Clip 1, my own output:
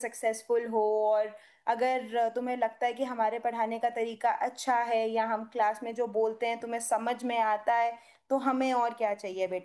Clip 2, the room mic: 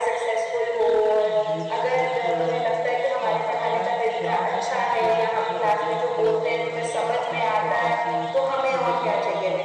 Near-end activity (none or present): present